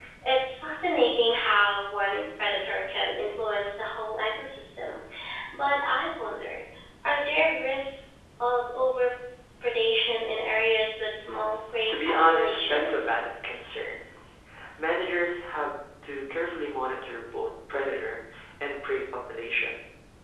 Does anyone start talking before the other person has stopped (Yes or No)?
Yes